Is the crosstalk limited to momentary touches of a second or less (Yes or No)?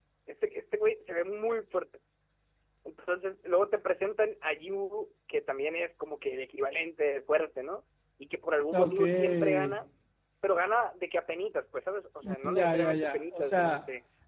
No